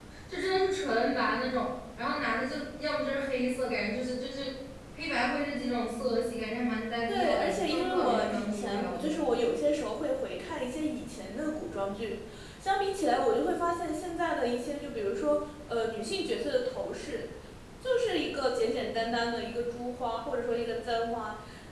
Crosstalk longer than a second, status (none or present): present